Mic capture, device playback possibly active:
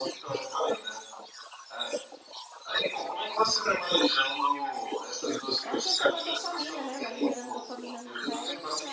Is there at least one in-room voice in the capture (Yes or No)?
Yes